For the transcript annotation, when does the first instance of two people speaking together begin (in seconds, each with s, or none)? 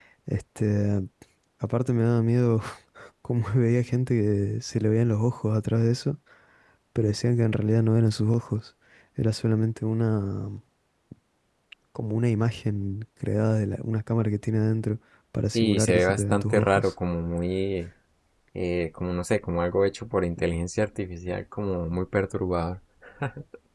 15.5 s